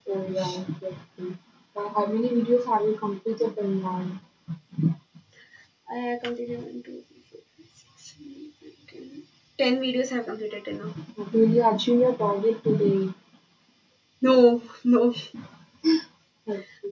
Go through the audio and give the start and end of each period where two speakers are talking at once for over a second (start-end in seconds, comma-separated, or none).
none